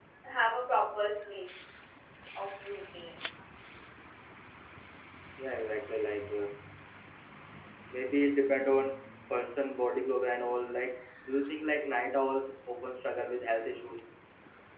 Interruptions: none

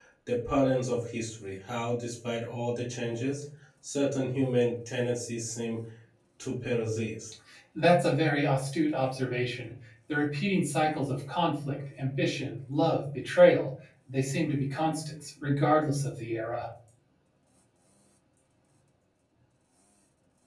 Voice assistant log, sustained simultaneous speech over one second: none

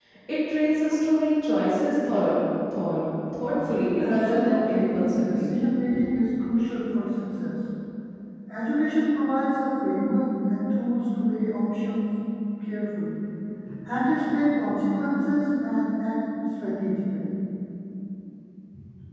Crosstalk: present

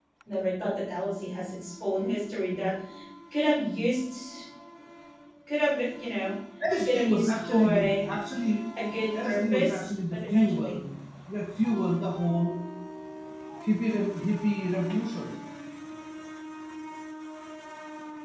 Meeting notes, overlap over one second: present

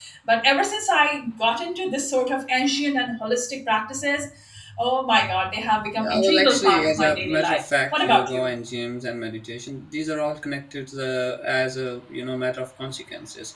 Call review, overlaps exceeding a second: present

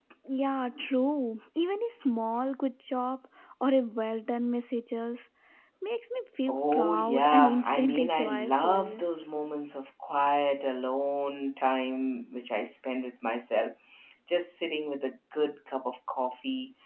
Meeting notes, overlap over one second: present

